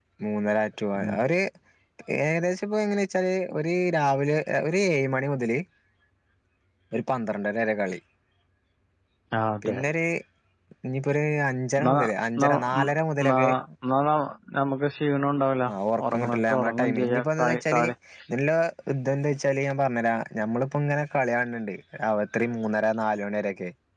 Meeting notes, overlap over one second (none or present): present